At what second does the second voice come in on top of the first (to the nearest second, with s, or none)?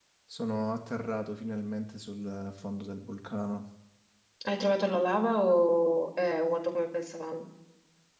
none